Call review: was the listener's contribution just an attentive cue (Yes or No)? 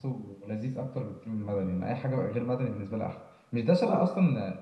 Yes